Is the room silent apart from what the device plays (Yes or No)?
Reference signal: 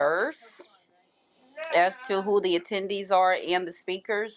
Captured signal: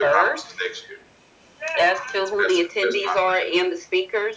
No